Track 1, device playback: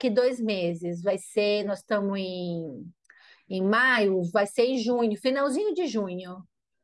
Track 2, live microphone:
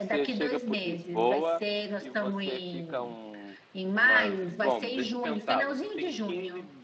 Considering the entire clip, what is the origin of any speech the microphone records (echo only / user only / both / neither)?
both